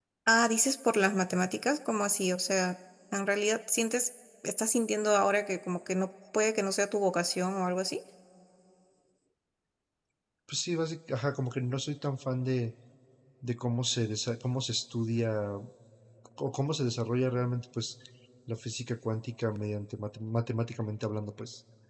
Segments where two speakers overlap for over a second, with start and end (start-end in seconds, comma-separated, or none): none